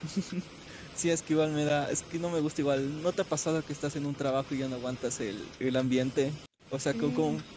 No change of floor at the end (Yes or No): Yes